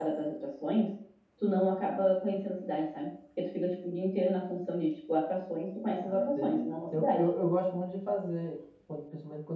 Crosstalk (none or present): present